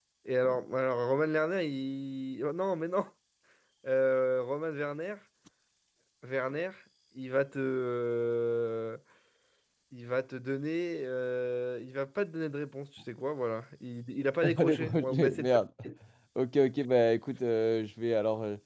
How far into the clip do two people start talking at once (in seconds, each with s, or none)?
14.4 s